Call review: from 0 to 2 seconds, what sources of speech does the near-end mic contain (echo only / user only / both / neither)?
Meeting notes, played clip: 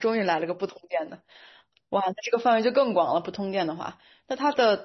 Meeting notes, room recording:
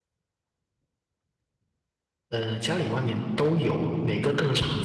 neither